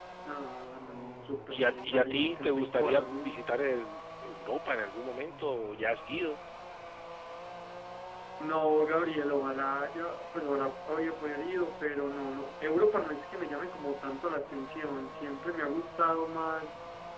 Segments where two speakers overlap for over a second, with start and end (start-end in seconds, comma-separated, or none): 1.5-3.4